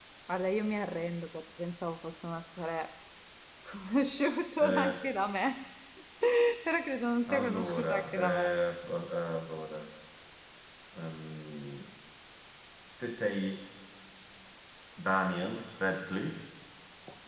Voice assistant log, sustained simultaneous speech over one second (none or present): present